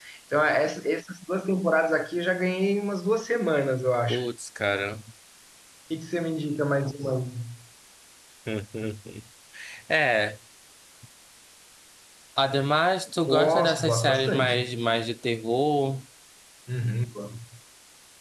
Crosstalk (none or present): present